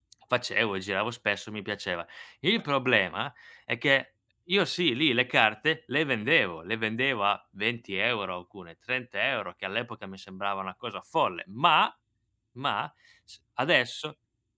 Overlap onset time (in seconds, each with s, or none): none